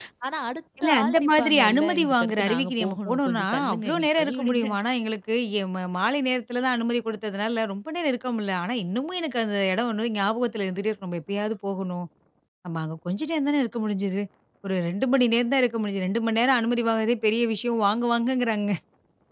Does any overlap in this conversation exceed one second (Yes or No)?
Yes